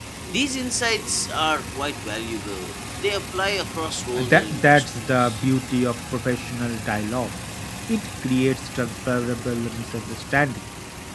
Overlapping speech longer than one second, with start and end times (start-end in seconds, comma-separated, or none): 4.2-5.4